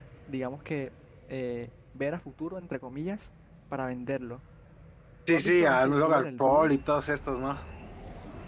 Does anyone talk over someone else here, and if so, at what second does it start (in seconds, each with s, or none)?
5.3 s